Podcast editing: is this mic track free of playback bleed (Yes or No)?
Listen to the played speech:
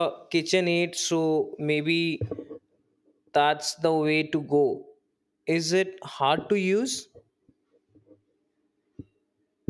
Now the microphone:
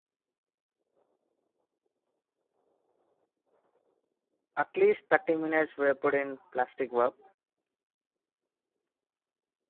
Yes